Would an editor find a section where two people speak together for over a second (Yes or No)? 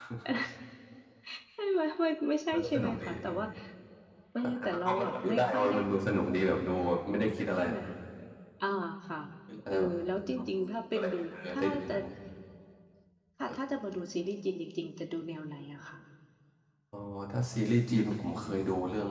Yes